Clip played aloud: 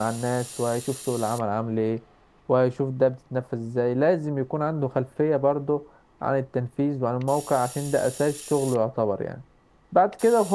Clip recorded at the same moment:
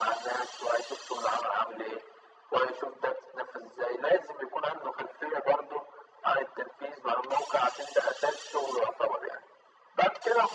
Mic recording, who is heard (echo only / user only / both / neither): echo only